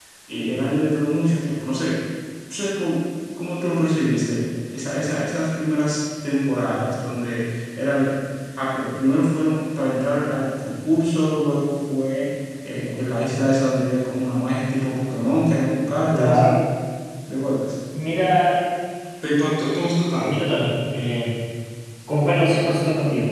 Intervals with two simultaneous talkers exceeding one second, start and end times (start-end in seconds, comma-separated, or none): none